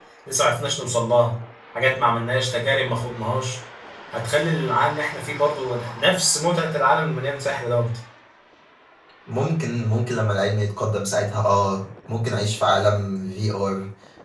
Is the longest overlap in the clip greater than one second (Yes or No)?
No